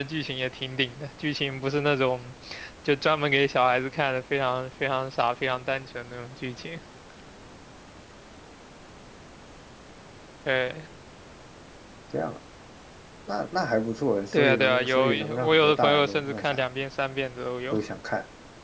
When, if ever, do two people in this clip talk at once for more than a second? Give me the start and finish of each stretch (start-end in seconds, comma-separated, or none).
14.3-16.6